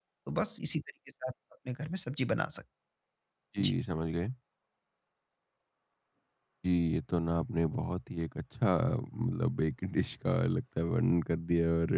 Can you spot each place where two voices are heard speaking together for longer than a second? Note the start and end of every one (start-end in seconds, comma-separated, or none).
none